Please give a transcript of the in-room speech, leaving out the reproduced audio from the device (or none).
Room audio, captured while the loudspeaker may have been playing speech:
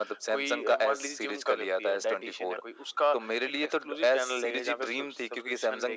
none